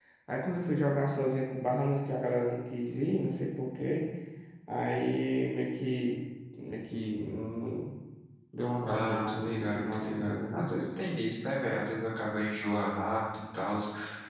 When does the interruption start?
9 s

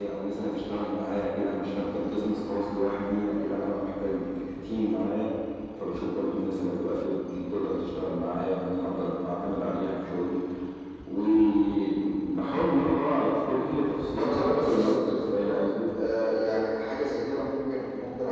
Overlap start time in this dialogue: 14 s

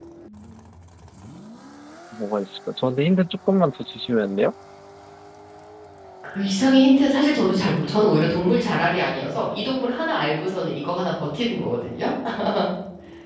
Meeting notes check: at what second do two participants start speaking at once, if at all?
none

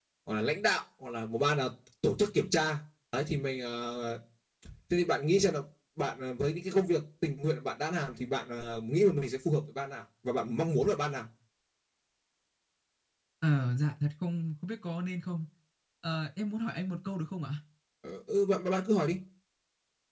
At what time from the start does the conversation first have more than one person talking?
none

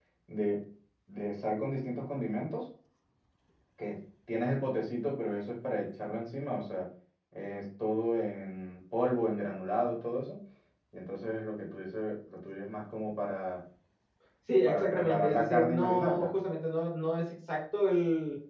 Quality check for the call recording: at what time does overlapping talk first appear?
15 s

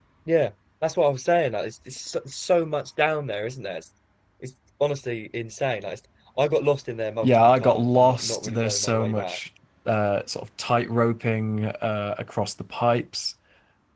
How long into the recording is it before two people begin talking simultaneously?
7 s

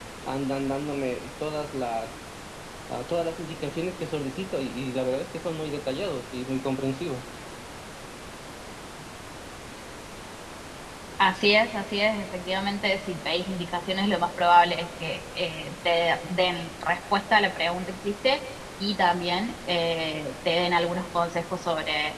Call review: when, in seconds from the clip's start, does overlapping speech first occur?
none

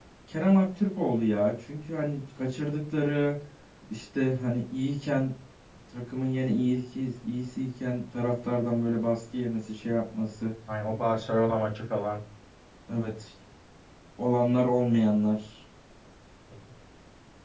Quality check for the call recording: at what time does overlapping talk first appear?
none

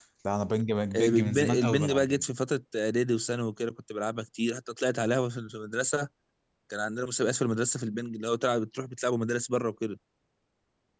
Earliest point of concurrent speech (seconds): 1 s

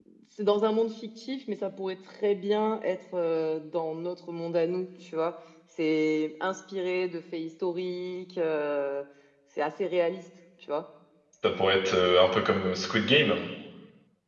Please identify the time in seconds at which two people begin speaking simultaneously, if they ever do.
none

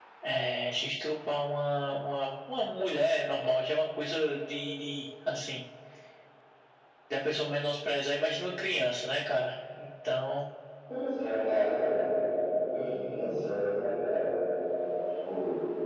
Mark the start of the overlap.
none

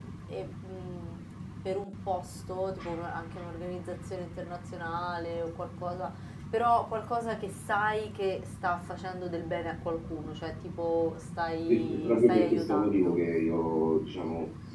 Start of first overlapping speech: 12 s

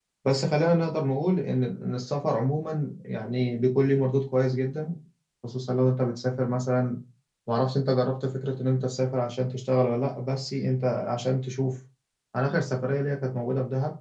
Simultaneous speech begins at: none

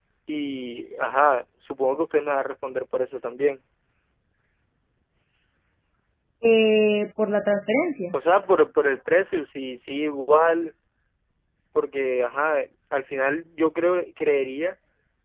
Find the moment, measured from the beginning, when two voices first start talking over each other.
none

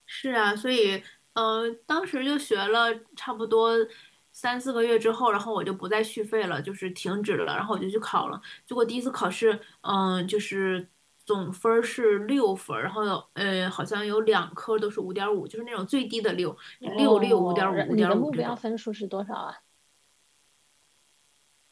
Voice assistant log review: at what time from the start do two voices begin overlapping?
17 s

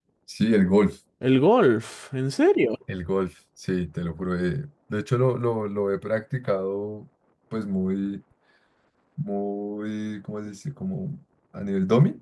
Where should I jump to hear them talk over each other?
none

